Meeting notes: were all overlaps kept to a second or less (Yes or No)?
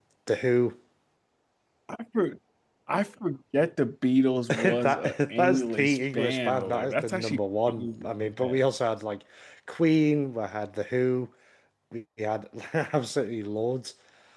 No